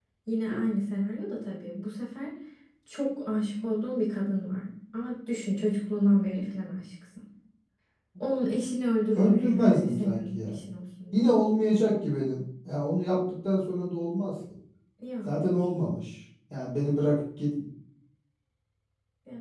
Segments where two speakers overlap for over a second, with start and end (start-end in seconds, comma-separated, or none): 9.2-10.6